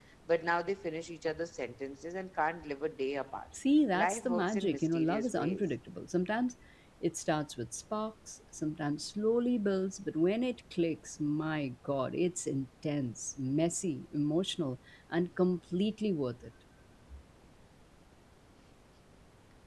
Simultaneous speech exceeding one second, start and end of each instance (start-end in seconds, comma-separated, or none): 3.9-5.7